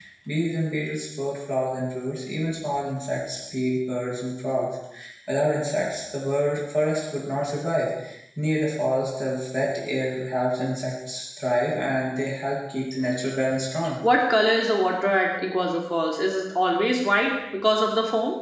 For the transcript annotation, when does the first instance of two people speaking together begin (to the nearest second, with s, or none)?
none